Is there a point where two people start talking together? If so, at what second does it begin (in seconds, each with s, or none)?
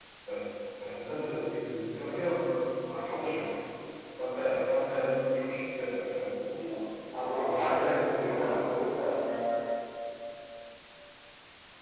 7.2 s